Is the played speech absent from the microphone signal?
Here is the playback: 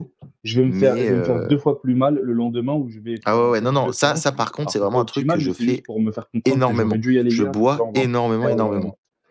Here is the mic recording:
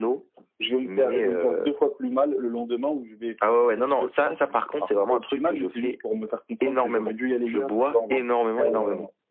No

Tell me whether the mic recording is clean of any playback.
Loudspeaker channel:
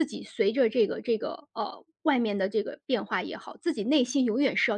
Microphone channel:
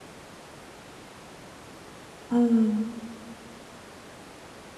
Yes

